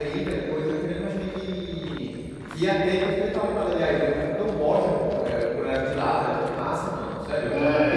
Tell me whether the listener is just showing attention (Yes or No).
No